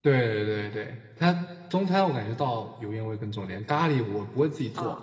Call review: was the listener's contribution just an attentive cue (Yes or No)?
Yes